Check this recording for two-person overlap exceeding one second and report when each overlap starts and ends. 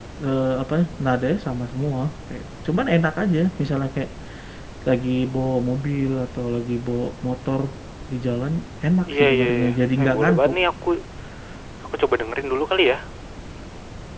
9.2-10.6

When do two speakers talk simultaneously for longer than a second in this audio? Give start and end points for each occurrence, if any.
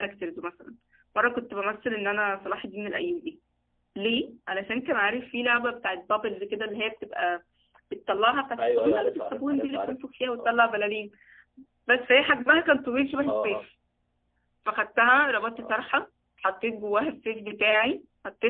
8.6-10.0

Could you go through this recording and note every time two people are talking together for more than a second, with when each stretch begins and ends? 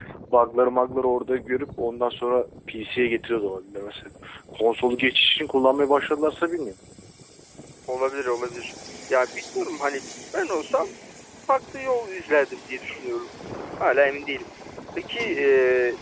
none

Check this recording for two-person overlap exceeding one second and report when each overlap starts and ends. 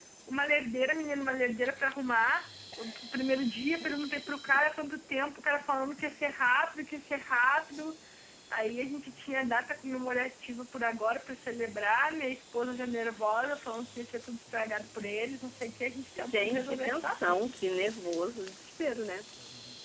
16.2-17.4

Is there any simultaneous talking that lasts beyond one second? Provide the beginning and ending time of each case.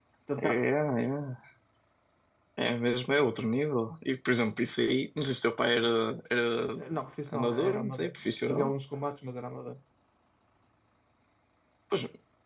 7.3-8.7

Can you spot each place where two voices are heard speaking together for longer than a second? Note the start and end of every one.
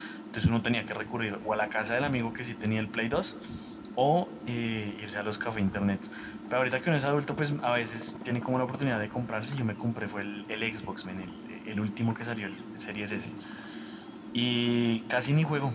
none

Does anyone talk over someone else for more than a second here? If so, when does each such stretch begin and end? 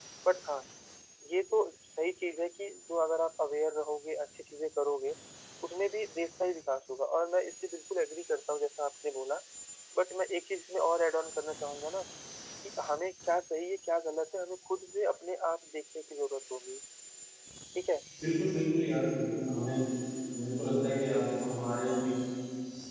none

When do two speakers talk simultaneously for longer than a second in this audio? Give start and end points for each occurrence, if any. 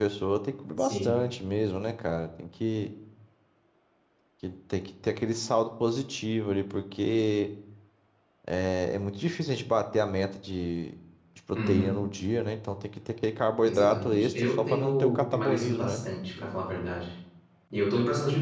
13.7-16.0

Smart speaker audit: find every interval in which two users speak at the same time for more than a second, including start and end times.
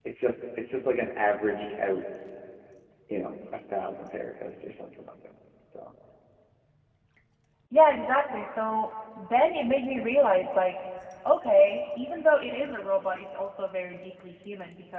none

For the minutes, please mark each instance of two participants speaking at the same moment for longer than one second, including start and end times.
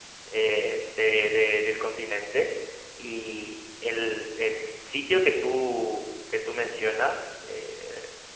none

